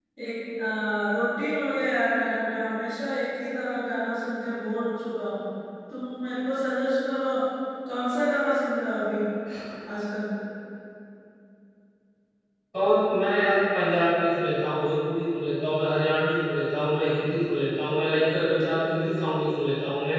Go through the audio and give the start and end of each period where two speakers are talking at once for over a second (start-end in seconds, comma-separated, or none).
none